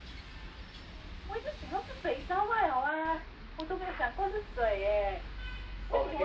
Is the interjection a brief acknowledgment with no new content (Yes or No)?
Yes